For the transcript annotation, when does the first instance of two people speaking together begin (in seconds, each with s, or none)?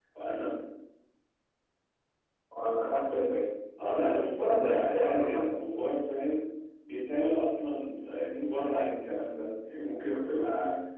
3.8 s